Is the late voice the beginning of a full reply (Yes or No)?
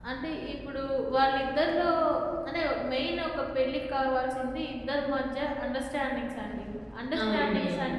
No